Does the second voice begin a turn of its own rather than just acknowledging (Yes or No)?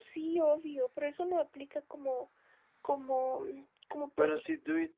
Yes